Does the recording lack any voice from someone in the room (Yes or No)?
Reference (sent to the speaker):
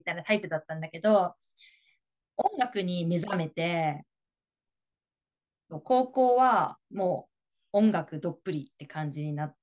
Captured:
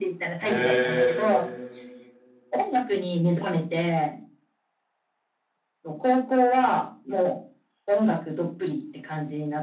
No